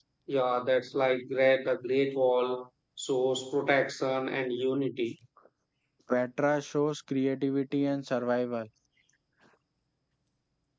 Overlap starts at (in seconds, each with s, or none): none